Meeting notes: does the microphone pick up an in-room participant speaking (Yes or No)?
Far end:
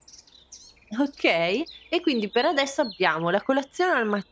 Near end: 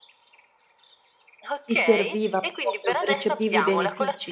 Yes